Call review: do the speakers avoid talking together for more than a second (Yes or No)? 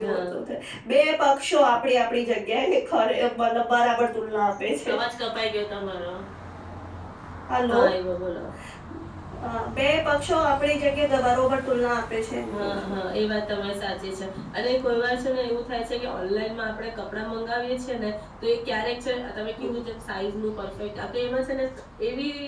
Yes